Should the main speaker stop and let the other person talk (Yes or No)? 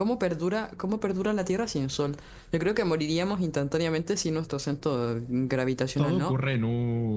Yes